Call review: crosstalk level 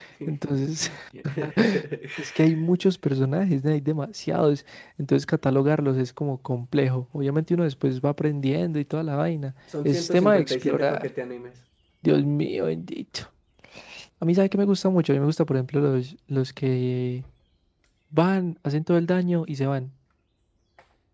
present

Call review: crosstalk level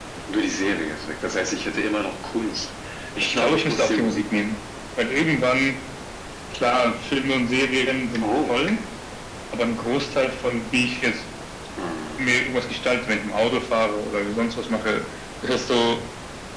present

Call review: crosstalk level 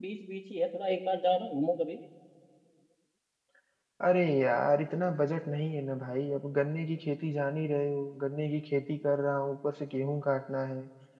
none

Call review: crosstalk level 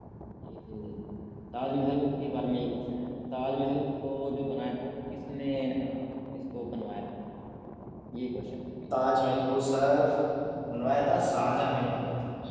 none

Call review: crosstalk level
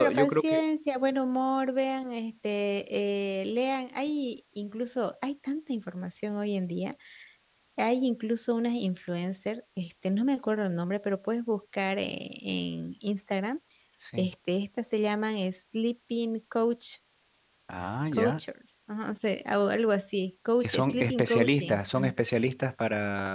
present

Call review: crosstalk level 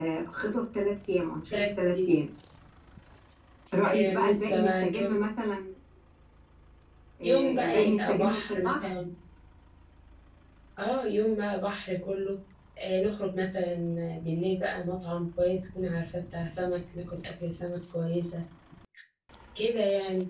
present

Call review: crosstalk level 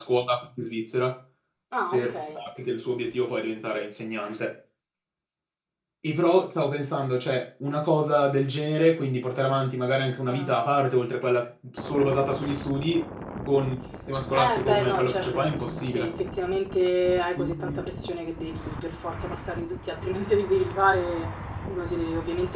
present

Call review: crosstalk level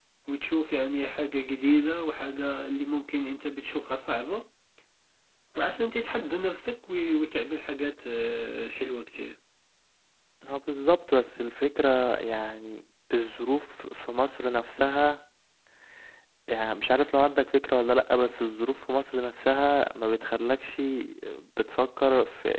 none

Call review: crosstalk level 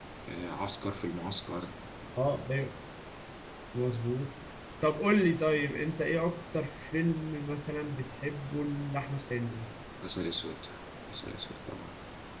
none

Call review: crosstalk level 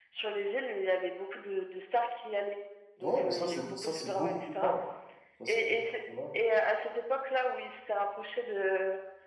present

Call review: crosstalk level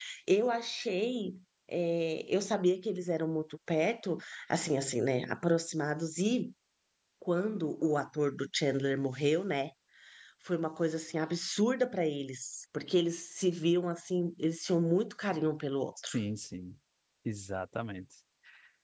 none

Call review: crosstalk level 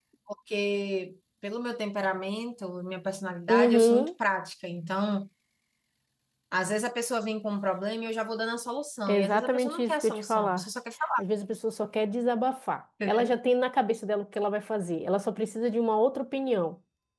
present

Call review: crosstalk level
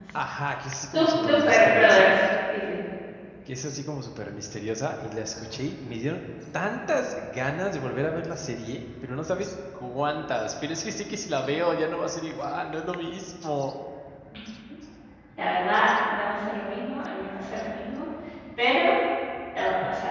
present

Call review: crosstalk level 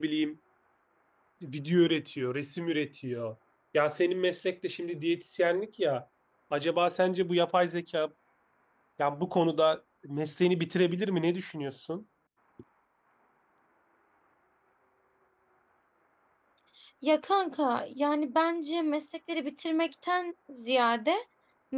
none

